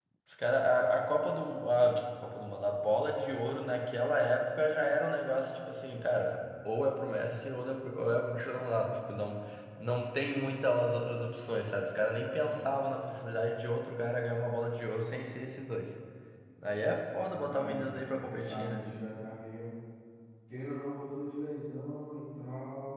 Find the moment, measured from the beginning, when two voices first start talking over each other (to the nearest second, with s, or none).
18 s